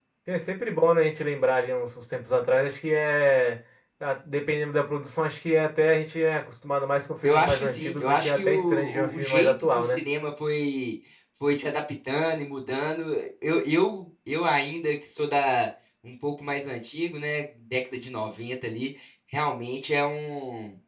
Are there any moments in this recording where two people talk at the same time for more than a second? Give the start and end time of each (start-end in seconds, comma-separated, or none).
7.2-10.0